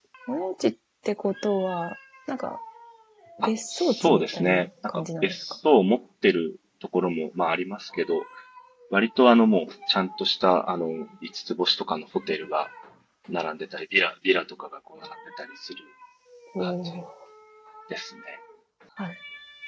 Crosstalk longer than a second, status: present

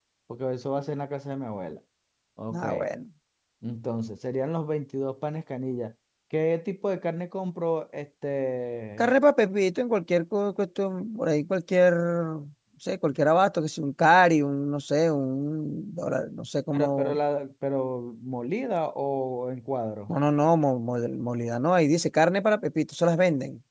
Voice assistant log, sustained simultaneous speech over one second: none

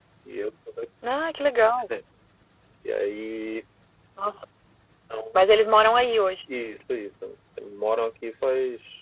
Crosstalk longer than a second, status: none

